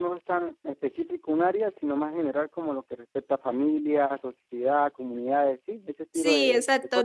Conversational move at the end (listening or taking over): taking over